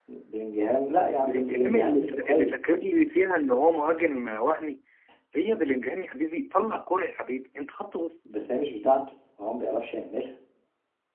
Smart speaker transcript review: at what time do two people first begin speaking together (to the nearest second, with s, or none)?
1 s